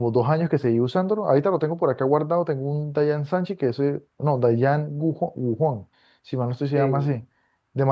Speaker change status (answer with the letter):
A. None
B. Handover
A